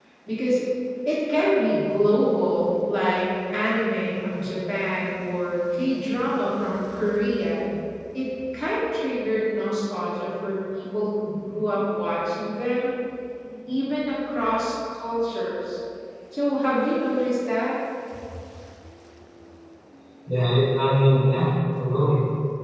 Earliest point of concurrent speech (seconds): none

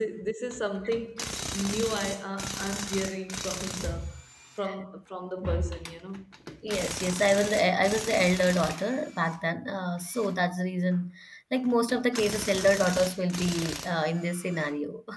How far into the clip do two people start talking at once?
none

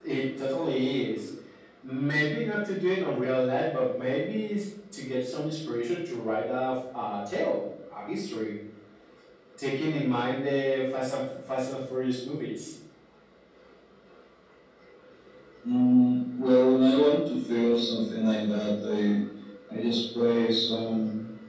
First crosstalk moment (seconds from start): none

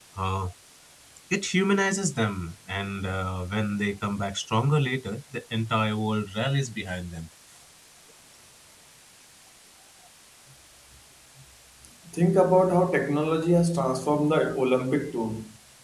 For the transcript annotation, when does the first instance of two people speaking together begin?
none

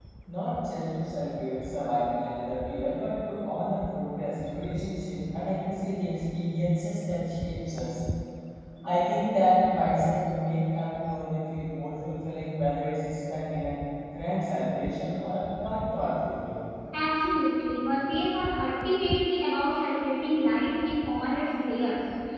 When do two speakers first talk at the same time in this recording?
none

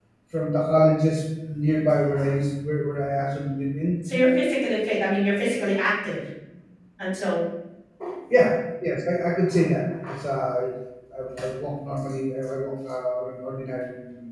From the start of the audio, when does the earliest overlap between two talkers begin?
none

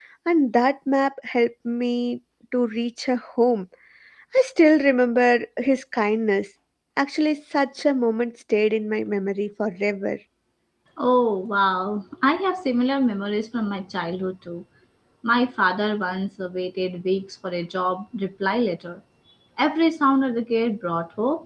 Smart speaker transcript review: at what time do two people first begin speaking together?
none

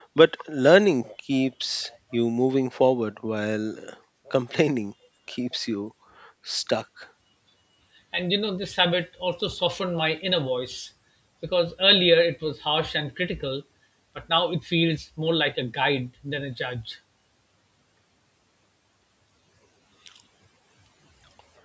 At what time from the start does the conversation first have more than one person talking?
none

